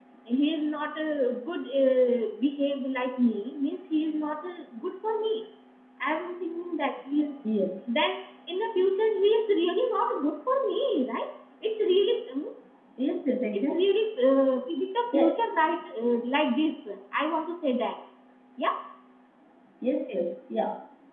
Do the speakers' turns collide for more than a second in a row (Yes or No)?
No